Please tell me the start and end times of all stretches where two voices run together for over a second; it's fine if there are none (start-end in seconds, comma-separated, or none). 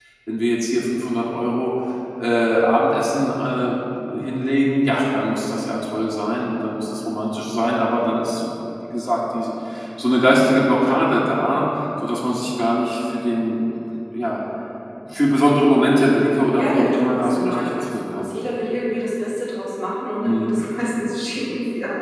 16.5-18.3